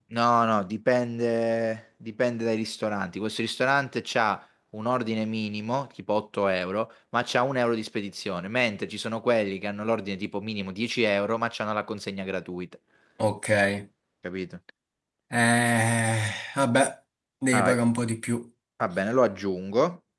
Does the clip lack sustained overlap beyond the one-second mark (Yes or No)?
Yes